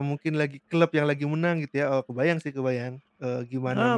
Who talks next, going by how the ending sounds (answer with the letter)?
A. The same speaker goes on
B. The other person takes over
B